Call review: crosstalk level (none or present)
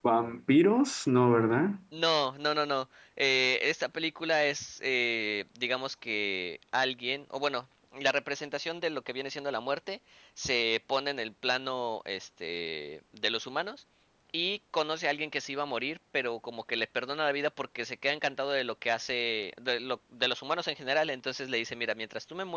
none